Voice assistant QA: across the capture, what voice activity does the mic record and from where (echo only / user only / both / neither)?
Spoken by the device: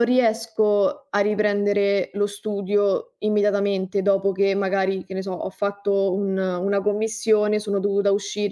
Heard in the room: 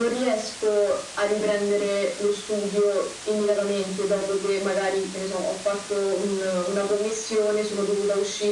echo only